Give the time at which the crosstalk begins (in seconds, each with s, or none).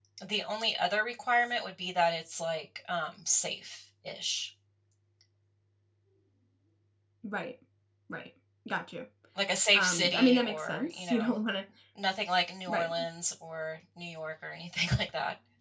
9.7 s